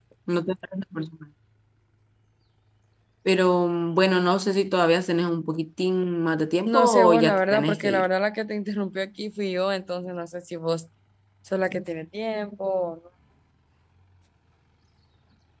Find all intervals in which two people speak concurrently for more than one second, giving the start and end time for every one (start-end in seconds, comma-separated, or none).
6.7-8.1